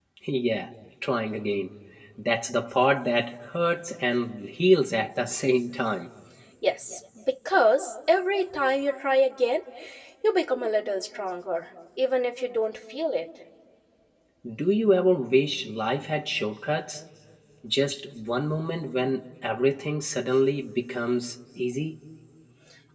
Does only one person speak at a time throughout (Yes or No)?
Yes